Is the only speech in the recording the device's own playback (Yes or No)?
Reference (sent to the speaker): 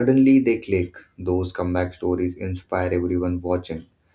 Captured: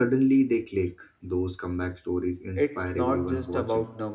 No